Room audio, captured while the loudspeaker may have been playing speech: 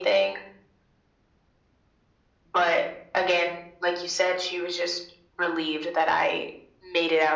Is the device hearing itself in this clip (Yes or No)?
Yes